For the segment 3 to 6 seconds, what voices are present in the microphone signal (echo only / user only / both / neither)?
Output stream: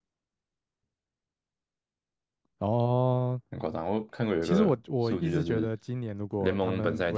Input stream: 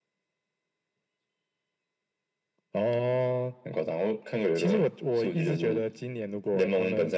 echo only